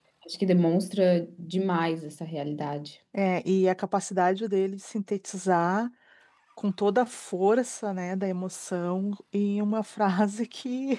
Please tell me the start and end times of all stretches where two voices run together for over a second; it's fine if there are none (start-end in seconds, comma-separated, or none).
none